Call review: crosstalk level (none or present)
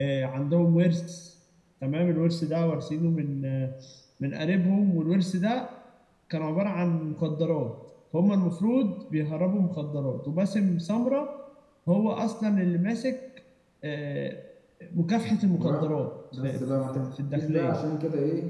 present